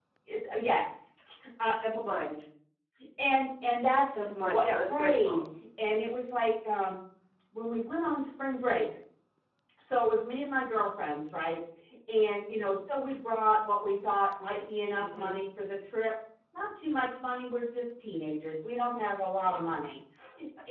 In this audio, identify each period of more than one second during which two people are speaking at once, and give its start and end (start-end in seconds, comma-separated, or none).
4.0-5.4